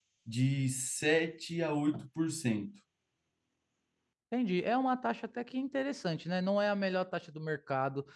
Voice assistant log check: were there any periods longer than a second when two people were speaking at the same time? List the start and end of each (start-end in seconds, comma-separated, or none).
none